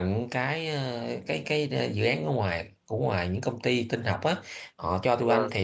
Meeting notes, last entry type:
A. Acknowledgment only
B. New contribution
A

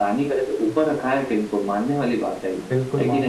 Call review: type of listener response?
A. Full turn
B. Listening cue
A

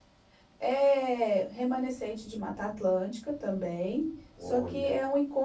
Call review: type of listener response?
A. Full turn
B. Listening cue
B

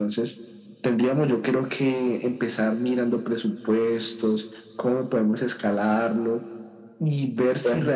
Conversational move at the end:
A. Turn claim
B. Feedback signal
B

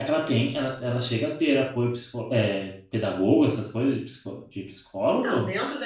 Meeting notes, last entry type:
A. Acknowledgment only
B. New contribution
B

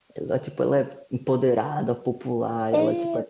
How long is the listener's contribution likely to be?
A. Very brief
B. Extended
A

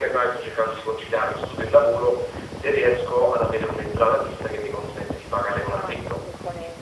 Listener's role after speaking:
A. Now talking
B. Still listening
A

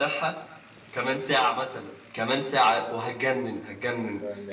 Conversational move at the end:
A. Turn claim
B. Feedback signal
A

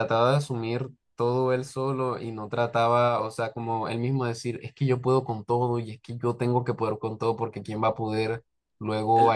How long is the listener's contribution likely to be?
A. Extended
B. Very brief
B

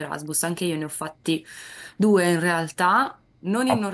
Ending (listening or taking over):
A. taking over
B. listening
B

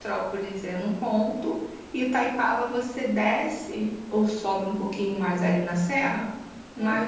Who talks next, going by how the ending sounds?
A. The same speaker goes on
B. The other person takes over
A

